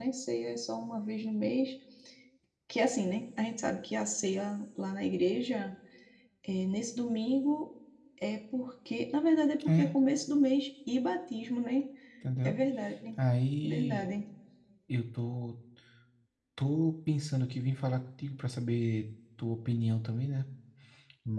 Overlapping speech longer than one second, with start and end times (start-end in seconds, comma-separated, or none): none